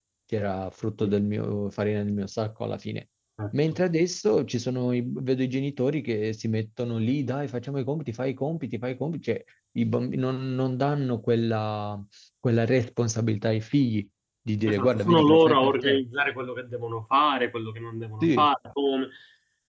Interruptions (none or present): present